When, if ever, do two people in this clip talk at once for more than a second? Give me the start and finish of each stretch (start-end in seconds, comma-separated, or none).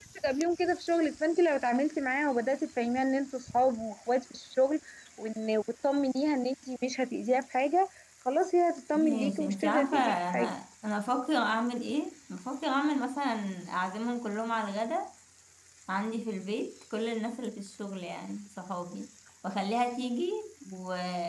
9.0-10.4